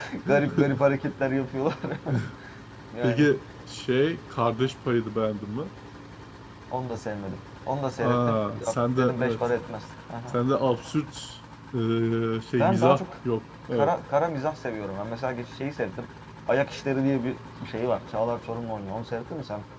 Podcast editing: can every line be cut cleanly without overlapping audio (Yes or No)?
No